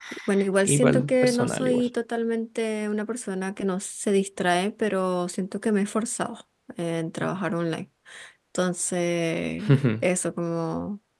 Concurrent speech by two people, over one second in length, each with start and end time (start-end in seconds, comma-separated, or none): 0.7-1.9